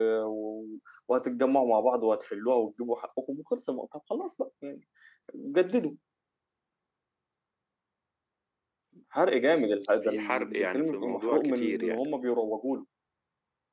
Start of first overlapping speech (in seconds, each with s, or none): 10.0 s